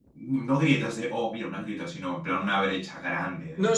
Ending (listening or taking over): taking over